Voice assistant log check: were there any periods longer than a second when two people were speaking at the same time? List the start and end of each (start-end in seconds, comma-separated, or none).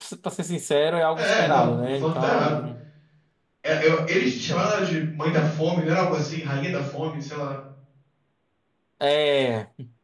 1.2-2.6